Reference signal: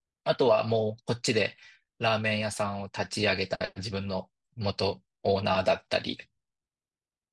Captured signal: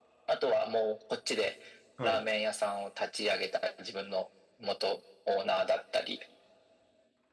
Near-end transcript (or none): はい